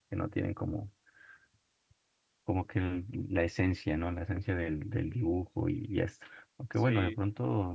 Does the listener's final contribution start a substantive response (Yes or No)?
No